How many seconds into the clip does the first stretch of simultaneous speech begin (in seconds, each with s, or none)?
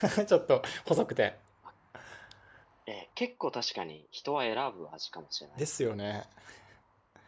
none